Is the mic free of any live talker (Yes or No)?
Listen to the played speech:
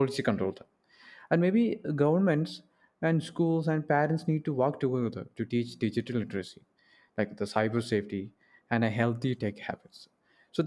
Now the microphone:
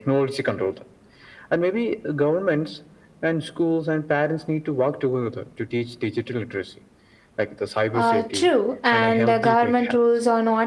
No